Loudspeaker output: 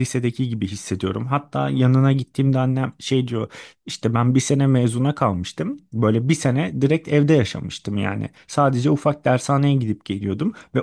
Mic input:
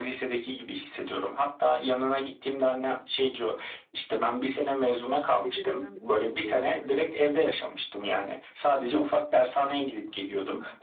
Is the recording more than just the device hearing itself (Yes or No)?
Yes